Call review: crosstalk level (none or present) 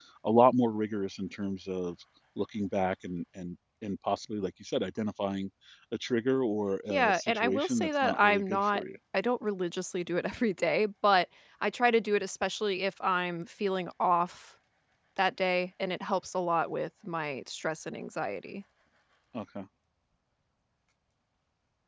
present